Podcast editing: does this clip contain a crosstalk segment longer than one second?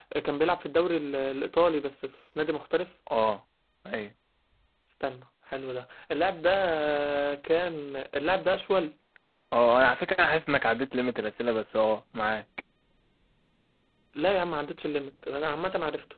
No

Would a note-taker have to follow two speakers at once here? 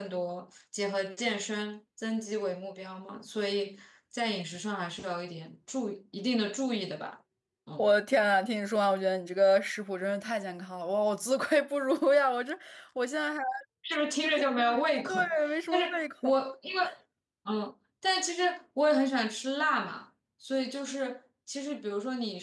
Yes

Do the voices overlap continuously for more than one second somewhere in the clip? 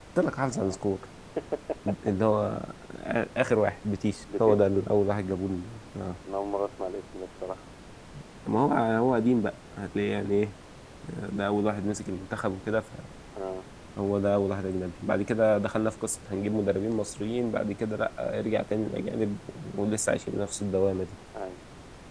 No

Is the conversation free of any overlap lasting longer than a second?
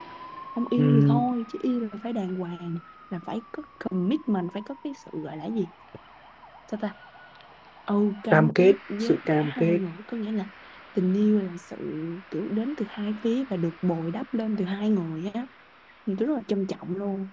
No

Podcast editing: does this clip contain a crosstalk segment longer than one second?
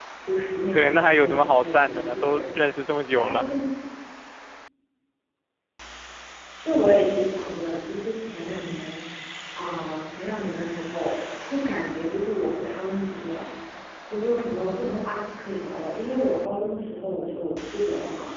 Yes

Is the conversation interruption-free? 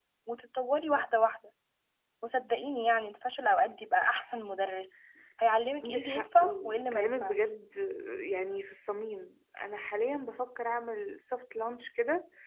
No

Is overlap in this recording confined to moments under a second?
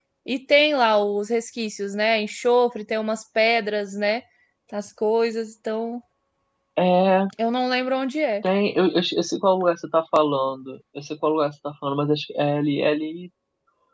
Yes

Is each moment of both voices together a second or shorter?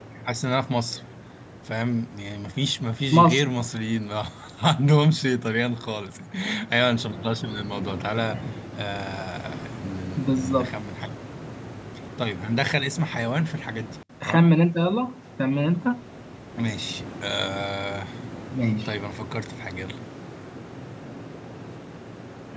Yes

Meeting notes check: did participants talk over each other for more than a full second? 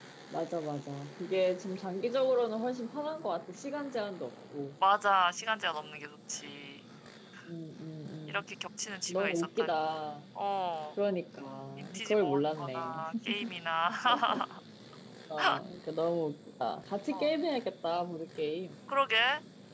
Yes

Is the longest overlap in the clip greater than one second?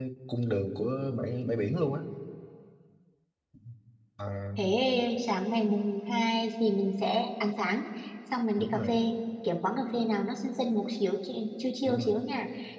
No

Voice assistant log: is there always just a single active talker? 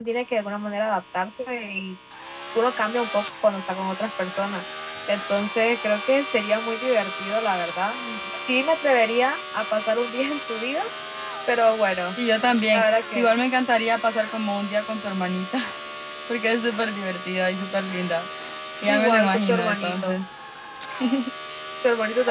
No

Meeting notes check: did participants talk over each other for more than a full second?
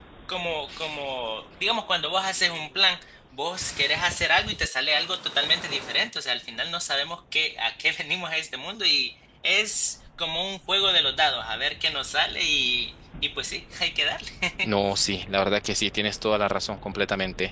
No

